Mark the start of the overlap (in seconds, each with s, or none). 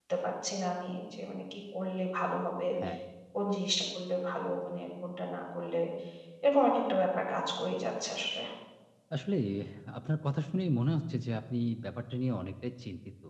none